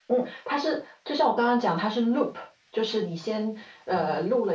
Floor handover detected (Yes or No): No